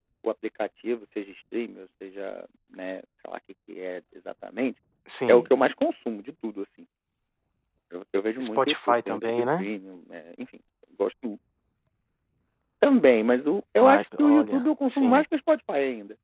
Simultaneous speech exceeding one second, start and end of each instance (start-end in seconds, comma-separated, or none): 8.4-9.7, 13.8-15.2